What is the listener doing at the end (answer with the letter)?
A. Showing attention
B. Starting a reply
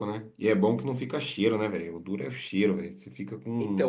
B